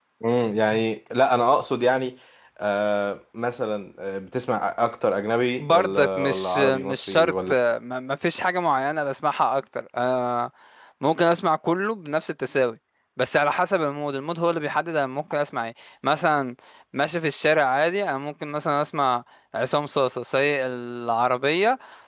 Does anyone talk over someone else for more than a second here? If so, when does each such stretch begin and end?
5.6-7.6

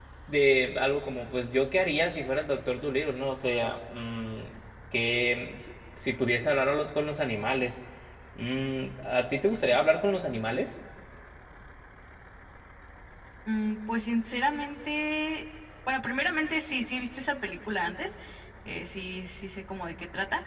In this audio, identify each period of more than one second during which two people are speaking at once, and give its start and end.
none

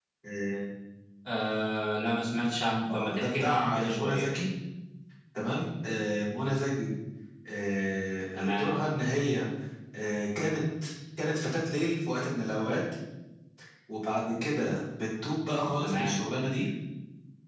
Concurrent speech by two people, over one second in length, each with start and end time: 2.9-4.2

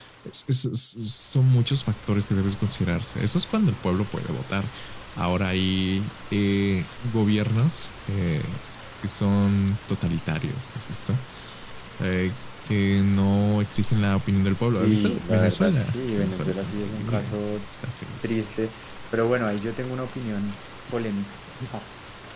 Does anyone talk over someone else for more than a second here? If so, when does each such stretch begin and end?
14.8-17.4

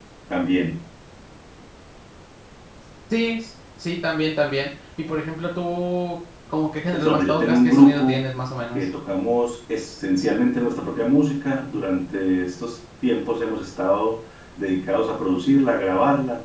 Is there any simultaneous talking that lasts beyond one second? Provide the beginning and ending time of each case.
6.9-8.2

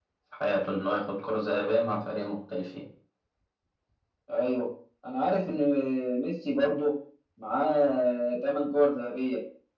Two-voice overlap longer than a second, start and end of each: none

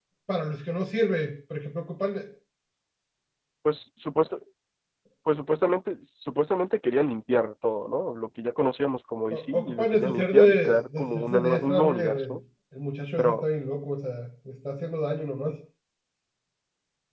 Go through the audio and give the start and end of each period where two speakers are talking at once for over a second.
9.3-12.4

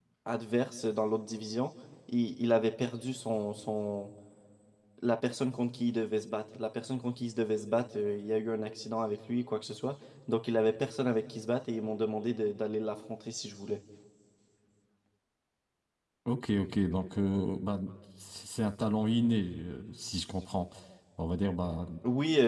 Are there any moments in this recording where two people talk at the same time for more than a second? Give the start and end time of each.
none

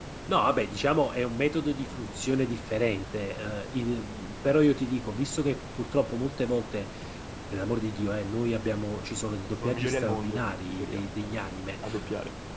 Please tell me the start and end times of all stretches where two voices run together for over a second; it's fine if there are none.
9.6-11.0

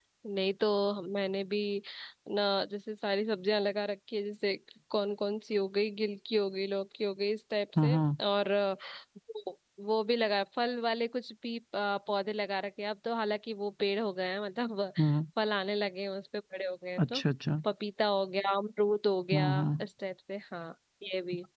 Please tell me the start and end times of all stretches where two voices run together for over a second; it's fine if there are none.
none

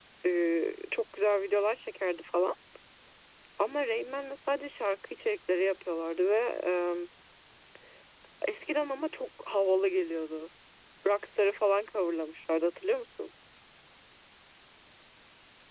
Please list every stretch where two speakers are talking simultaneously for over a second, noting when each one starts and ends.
none

